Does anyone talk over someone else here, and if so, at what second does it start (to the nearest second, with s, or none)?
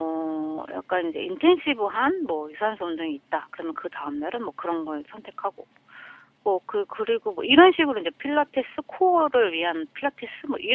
none